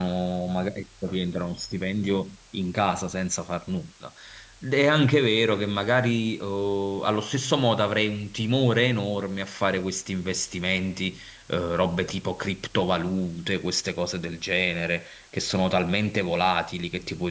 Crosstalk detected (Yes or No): No